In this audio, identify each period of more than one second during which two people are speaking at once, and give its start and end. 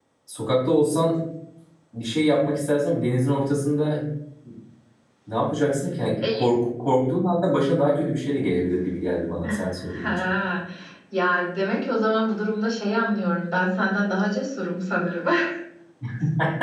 none

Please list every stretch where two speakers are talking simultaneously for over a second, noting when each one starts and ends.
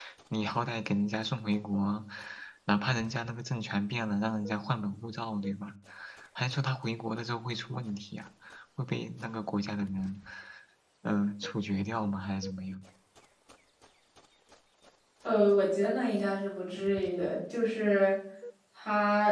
none

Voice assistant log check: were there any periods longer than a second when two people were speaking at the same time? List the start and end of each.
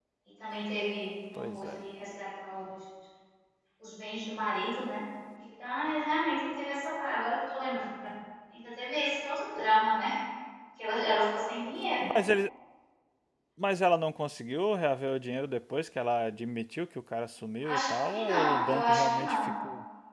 17.6-19.5

